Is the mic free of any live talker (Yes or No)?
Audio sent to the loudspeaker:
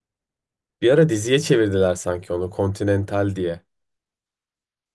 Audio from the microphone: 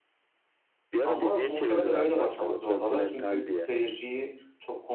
No